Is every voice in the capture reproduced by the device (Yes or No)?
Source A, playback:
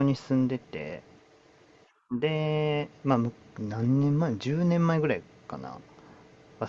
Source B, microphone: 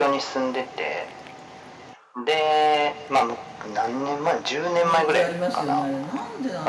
No